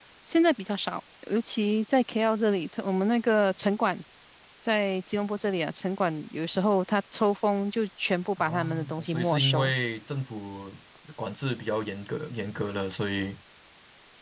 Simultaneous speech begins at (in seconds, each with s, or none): 8.4 s